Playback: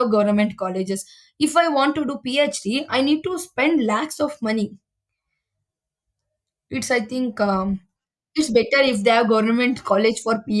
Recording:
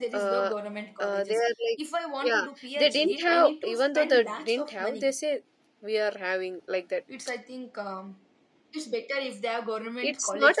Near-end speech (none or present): present